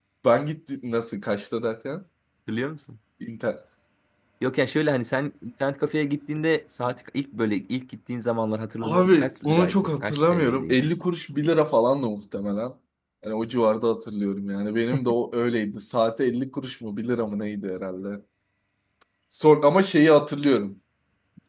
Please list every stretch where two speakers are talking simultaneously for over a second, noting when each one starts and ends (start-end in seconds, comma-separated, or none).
8.8-10.9